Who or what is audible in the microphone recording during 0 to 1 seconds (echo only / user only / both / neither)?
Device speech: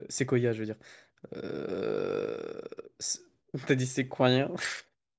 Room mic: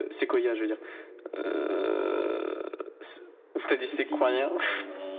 echo only